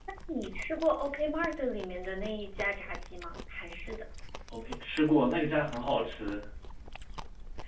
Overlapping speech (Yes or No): No